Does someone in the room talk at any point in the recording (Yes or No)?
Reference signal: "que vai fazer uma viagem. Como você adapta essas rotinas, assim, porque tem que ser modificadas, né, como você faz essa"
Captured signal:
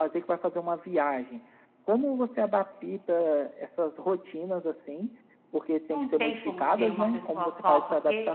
Yes